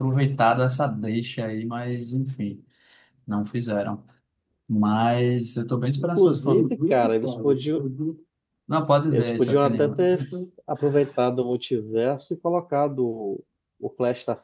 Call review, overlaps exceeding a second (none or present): present